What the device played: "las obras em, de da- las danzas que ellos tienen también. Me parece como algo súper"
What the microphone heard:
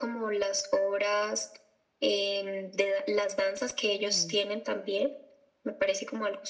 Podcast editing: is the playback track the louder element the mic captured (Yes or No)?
Yes